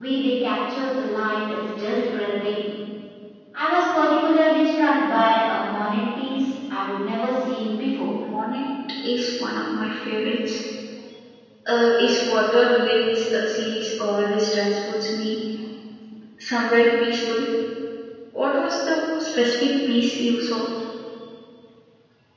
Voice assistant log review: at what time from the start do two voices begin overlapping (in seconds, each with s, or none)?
none